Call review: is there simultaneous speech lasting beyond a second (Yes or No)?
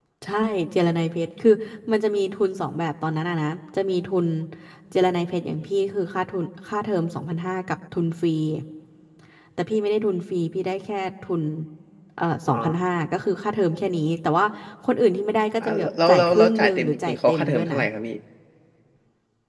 Yes